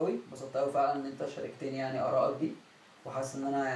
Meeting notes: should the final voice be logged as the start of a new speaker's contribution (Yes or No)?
No